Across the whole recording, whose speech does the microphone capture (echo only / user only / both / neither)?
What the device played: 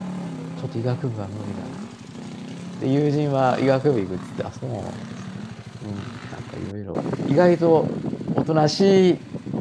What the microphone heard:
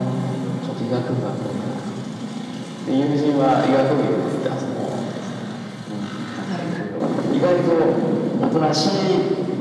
both